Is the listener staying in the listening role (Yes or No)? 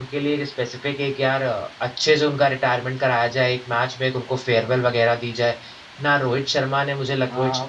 No